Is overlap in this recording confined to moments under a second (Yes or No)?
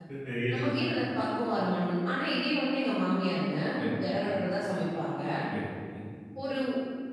Yes